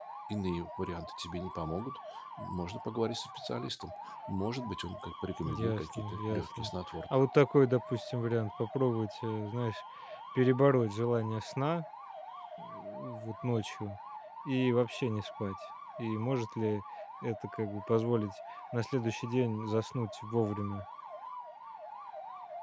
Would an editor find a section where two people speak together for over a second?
Yes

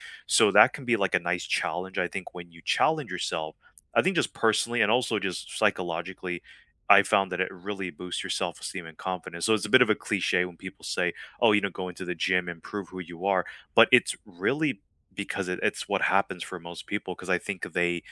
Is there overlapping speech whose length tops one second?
No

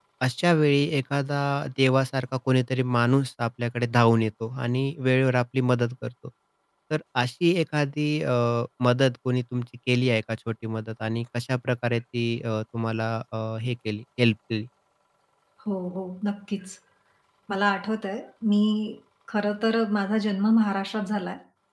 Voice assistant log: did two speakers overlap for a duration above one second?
No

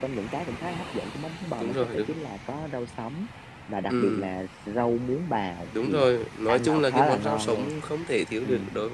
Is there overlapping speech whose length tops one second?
Yes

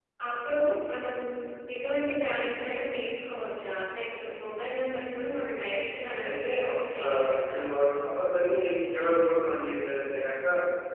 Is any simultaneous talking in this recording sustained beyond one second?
Yes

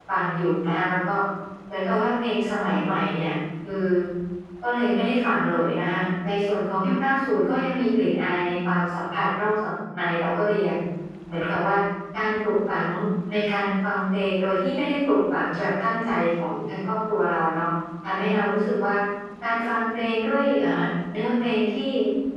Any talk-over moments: No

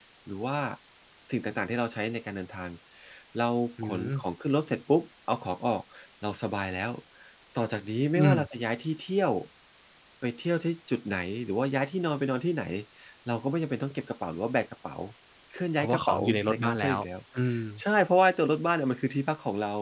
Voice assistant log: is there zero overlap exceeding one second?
No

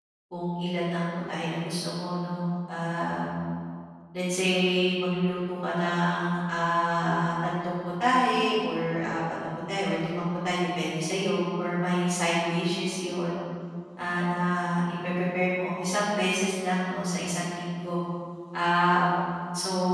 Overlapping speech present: No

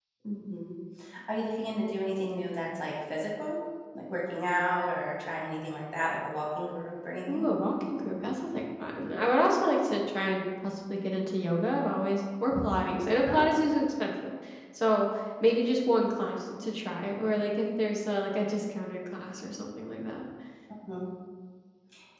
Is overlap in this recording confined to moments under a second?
Yes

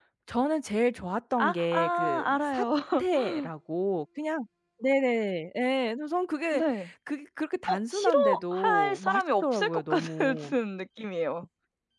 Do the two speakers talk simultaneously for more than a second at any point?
Yes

